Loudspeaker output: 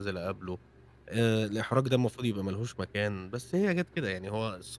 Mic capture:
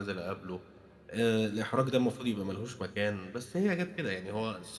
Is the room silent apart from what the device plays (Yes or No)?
Yes